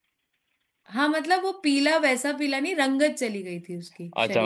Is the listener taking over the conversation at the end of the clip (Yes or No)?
Yes